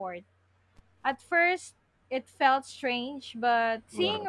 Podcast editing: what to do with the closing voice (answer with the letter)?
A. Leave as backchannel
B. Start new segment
A